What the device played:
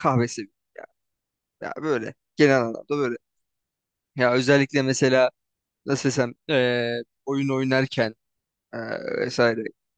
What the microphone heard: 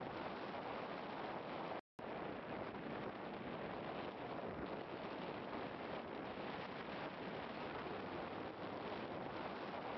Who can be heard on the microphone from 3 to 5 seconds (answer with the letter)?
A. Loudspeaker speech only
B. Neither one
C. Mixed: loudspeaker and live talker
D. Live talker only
B